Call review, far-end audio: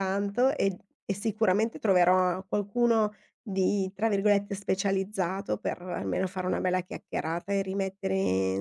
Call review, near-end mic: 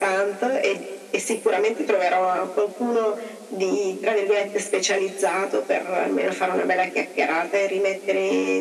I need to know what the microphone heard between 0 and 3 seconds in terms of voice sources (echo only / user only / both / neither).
echo only